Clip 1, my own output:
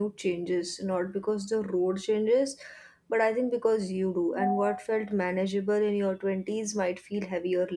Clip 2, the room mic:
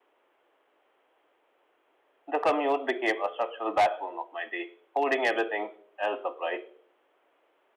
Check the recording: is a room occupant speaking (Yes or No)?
Yes